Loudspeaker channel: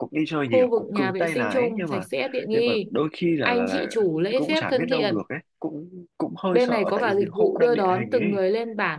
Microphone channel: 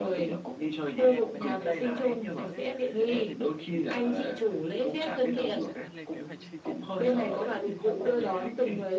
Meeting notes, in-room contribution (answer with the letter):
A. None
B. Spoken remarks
B